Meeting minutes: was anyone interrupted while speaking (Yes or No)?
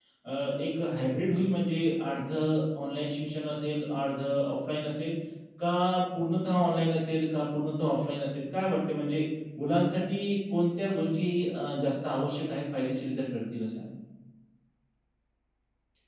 No